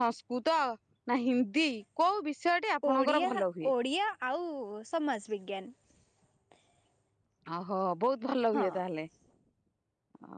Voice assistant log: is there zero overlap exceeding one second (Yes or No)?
Yes